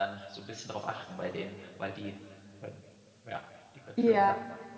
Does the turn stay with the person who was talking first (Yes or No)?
No